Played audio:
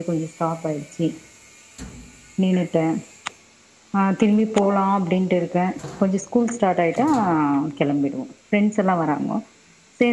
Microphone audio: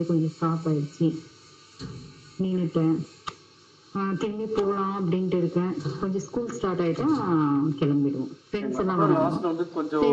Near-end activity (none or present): present